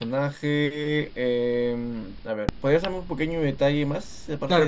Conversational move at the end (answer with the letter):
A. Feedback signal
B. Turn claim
B